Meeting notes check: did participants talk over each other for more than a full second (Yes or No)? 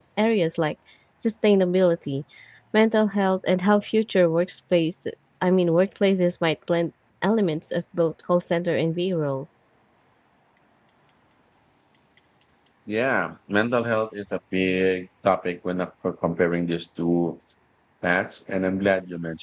No